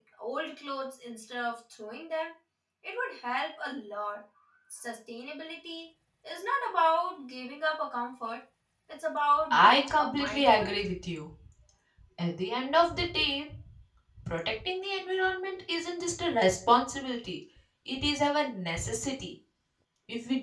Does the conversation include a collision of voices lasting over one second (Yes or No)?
Yes